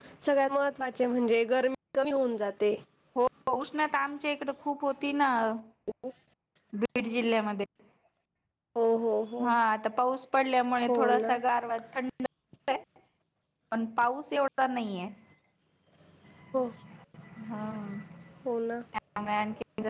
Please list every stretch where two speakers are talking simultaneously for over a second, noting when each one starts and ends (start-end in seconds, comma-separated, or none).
none